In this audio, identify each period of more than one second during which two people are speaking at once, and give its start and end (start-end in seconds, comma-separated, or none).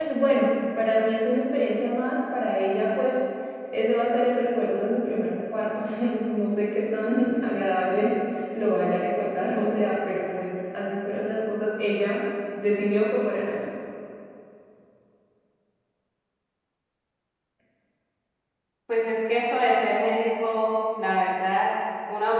none